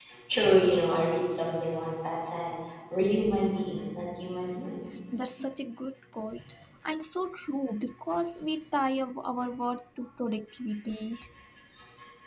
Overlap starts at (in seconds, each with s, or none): none